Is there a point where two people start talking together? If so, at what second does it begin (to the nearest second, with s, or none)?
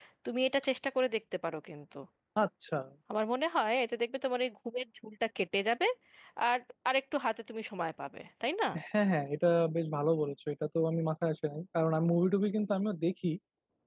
none